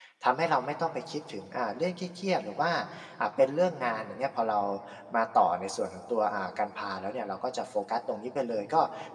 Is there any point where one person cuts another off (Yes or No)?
No